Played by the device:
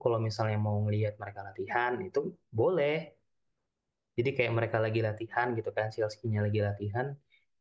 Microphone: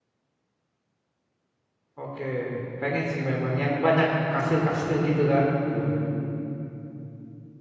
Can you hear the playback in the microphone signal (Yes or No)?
No